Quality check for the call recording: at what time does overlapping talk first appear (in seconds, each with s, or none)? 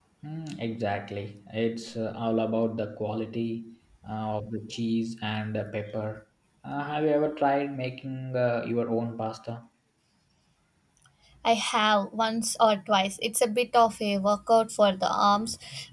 none